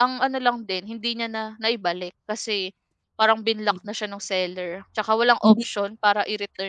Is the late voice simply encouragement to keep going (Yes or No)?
Yes